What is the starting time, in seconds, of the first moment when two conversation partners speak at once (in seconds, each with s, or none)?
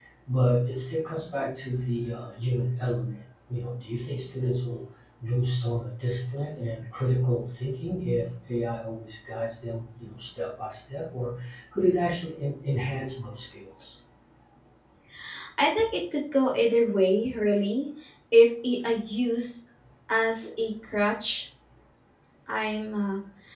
none